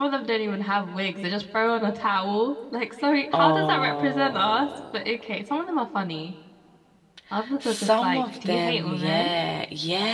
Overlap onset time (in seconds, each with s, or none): 3.3 s